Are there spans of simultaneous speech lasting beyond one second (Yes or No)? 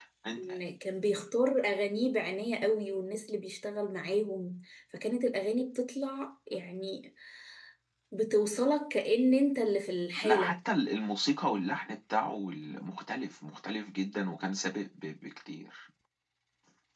No